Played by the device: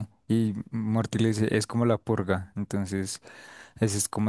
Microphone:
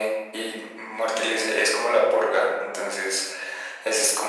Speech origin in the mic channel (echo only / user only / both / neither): echo only